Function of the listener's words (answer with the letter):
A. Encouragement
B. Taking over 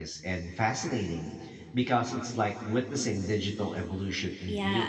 B